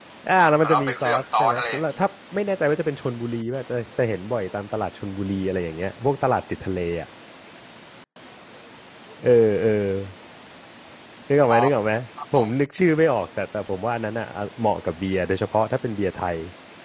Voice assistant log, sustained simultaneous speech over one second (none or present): present